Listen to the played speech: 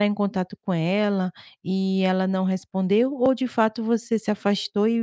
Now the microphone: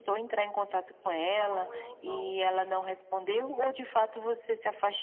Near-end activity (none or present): present